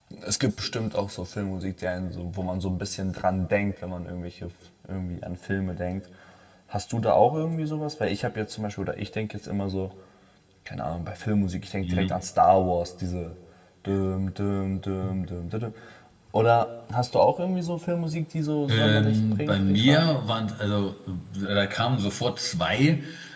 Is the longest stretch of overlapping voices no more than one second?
No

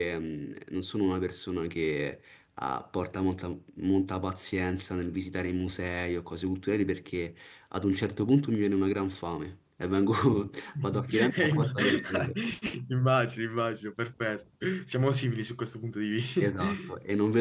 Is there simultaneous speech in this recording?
Yes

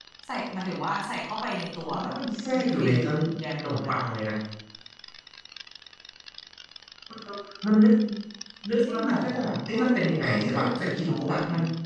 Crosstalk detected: Yes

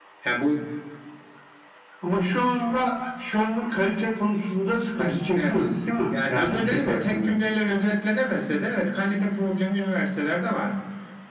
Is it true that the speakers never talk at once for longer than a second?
No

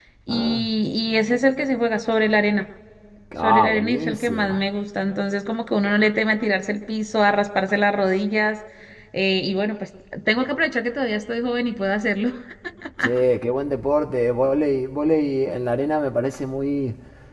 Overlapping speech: Yes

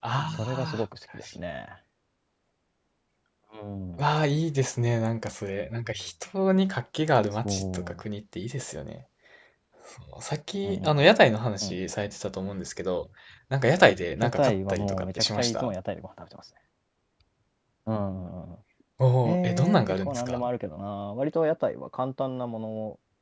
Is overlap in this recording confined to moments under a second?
No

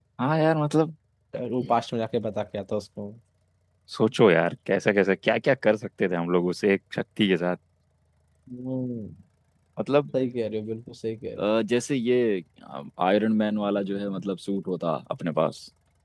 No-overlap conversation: Yes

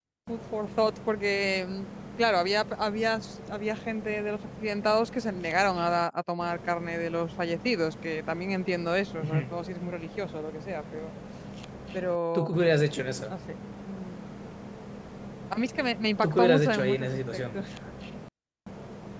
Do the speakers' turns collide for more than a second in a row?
Yes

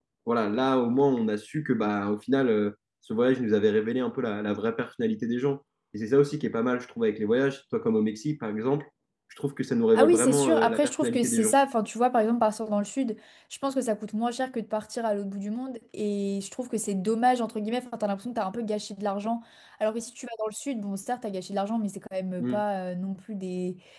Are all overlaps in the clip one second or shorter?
No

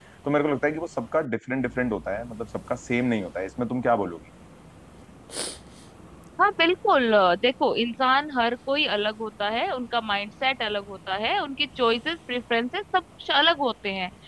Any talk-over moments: No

